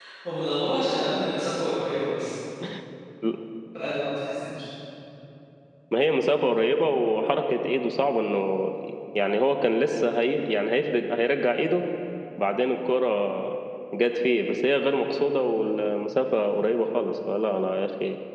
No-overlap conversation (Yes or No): Yes